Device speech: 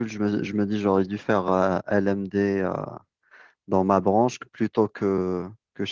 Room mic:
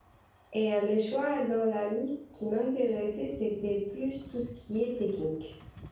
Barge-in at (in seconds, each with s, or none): 0.5 s